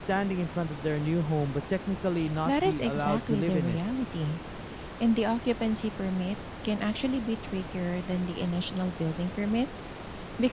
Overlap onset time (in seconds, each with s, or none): 2.5 s